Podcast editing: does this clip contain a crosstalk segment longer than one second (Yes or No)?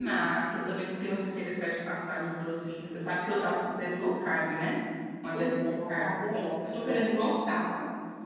Yes